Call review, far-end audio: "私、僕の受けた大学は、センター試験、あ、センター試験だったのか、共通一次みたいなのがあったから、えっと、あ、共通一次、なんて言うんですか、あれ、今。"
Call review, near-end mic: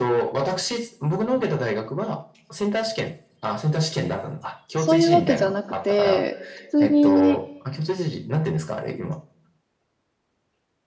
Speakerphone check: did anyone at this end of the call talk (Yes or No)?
Yes